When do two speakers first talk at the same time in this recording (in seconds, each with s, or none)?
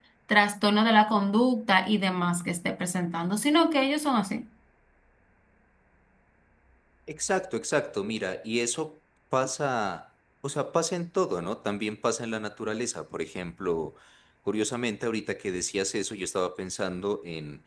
none